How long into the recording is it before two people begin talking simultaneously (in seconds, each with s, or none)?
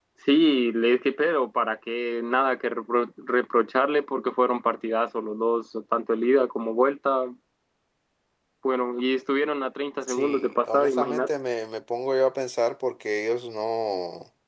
10.1 s